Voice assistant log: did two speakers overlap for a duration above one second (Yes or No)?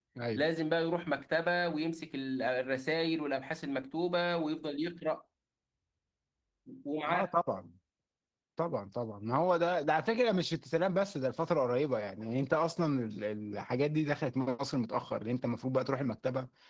No